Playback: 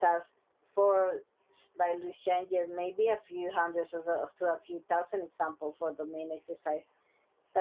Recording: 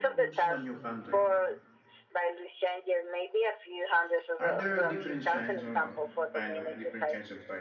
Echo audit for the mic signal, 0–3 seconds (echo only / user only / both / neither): both